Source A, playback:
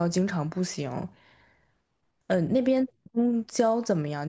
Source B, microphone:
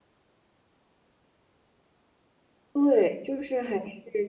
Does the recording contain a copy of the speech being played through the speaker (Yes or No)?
No